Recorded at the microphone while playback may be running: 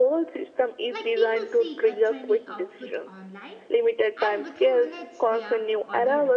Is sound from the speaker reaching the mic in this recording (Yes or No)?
Yes